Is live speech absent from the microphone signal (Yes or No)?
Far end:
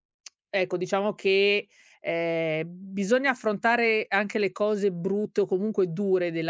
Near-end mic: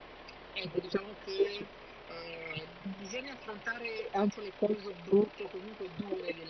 Yes